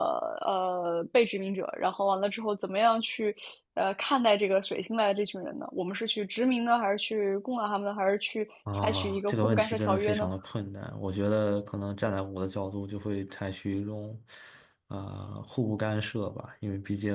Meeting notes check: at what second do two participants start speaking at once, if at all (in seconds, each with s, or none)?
8.7 s